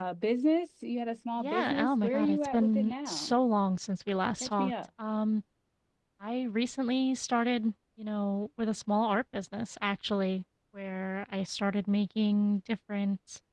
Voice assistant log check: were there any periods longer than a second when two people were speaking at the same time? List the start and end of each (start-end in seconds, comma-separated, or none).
1.4-3.4